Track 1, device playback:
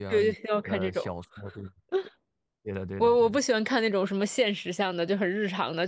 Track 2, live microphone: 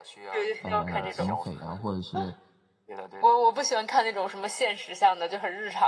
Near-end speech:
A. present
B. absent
A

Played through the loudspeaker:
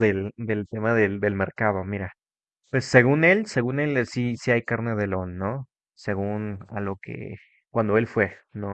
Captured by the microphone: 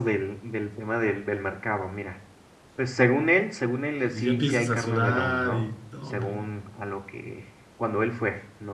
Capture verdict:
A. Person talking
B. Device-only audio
A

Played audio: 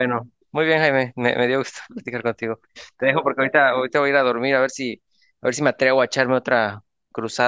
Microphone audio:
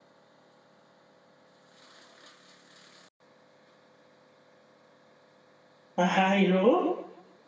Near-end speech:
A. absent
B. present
B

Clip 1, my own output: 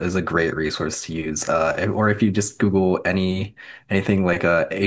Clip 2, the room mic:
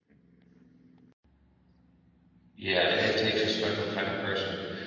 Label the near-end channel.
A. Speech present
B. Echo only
A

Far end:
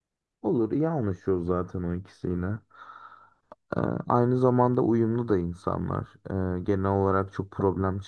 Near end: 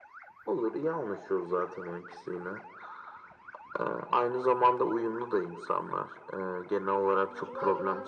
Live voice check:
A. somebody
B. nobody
A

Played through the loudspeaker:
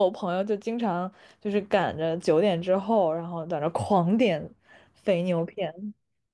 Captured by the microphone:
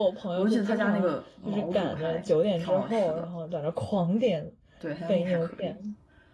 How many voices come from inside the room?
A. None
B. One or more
B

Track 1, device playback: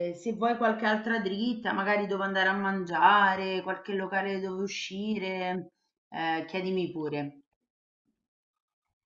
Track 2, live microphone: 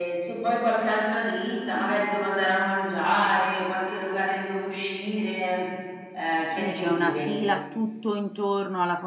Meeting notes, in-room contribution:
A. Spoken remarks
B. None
A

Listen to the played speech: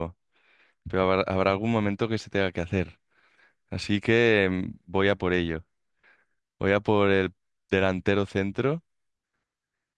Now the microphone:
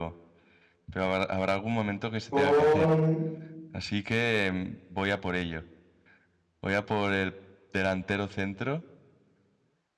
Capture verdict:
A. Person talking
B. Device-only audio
A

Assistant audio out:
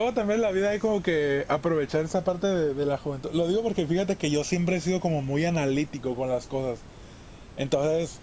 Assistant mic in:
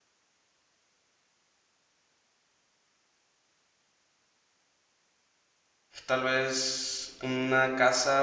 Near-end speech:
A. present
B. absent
A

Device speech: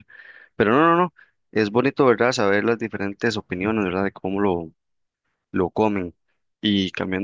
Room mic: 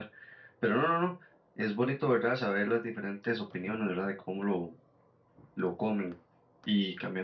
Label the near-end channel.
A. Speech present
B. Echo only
B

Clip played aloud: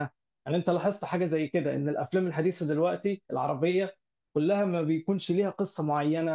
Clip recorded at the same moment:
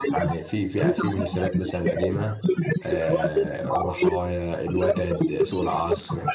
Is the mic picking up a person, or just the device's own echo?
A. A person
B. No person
A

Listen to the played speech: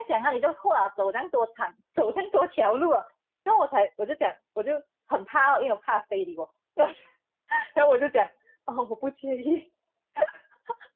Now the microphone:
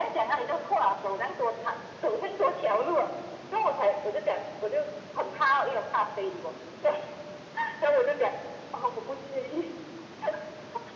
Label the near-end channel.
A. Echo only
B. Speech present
A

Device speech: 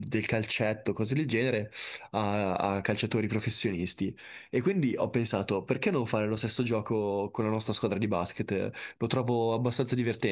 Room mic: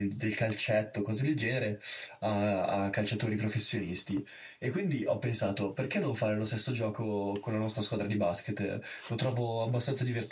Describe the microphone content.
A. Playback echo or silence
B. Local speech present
A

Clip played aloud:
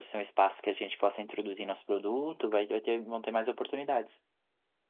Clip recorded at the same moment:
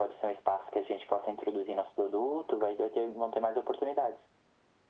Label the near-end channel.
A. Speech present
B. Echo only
B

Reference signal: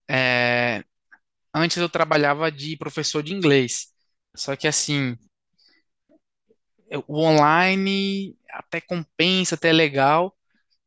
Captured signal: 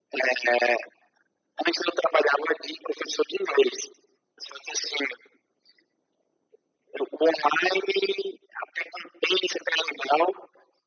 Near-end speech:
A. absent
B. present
A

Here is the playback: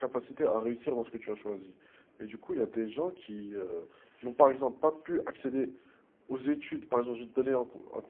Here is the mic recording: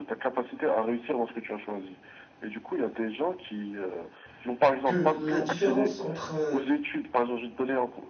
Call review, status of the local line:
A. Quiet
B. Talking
B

